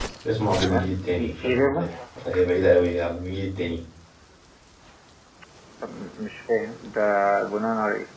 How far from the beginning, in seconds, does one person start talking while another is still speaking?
0.6 s

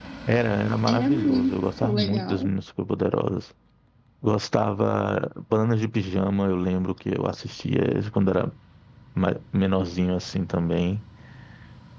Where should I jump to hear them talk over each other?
0.9 s

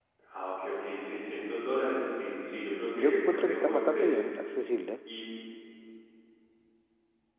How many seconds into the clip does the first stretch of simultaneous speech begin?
2.9 s

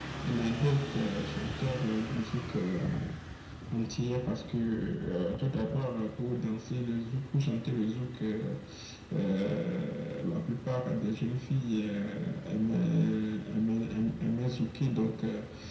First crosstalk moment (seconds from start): none

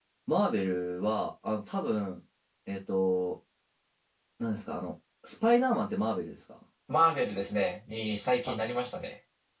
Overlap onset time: none

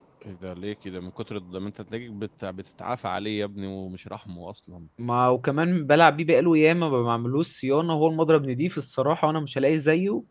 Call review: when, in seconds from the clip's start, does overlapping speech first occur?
none

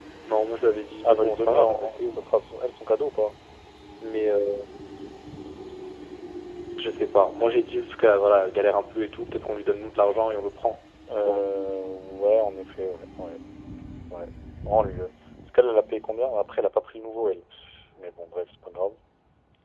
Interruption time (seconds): 1.0 s

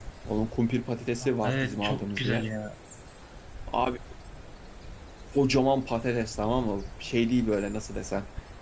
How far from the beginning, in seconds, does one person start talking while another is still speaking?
1.2 s

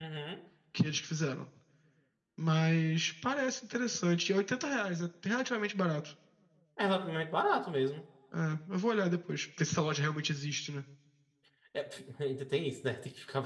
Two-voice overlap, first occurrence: none

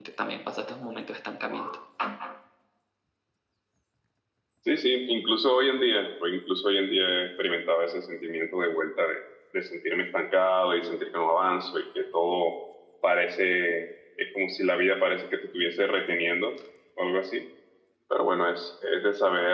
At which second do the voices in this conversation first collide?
none

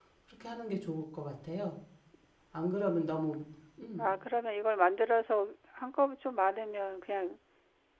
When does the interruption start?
none

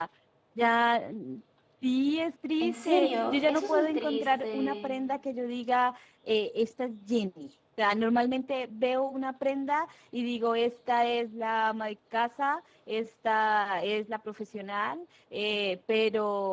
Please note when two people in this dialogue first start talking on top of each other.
2.6 s

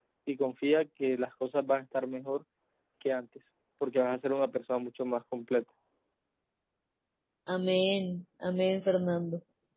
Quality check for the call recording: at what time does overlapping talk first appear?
none

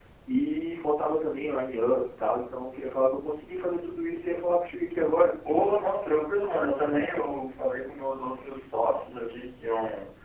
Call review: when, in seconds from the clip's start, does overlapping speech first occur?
none

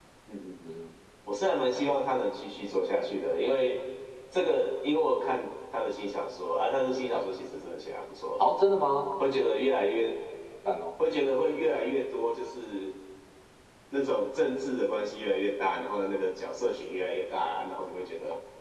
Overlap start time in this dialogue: none

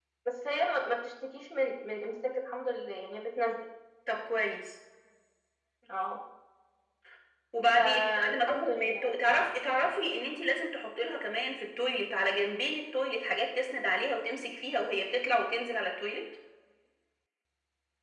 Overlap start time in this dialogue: 7.8 s

